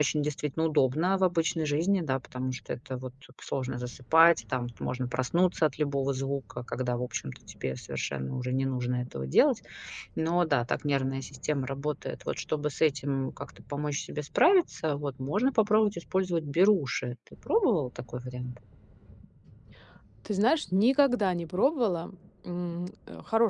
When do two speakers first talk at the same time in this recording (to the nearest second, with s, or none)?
none